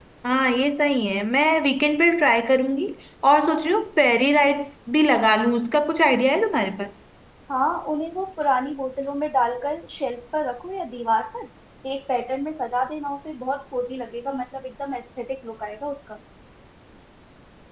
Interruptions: none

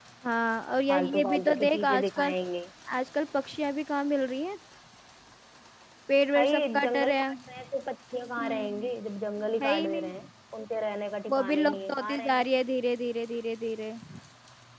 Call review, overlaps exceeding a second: present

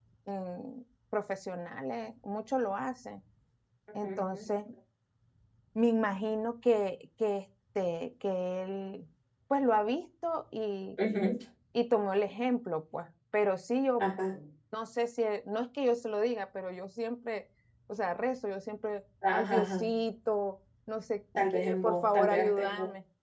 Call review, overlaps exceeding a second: present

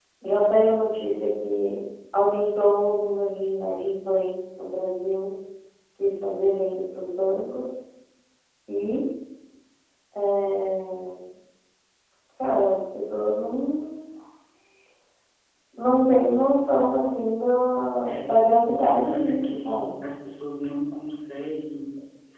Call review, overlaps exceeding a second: present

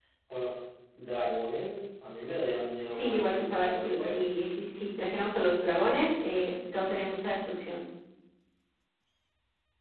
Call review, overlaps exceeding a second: present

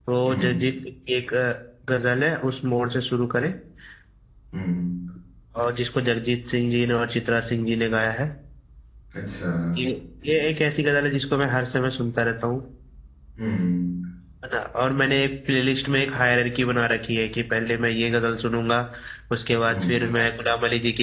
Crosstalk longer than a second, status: none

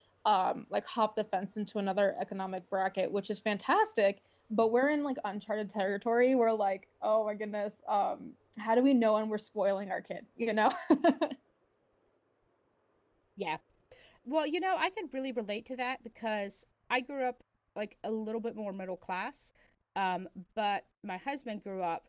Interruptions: none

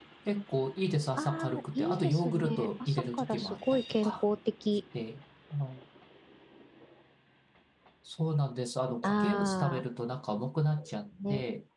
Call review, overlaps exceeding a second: present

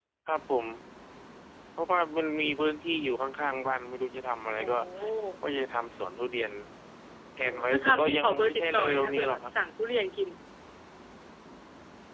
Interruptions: present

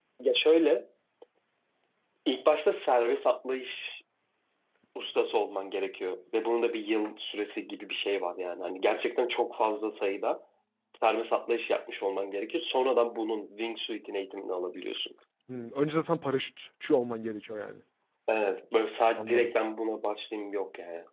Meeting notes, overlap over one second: none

